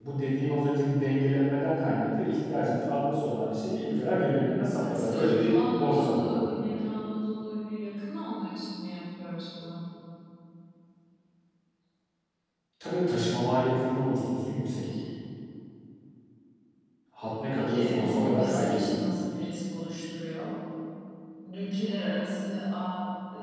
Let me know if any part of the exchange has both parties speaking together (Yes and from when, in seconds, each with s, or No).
Yes, from 4.9 s